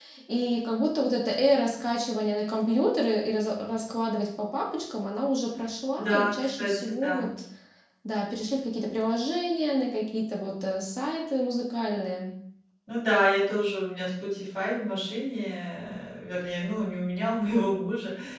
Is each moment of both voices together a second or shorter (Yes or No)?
No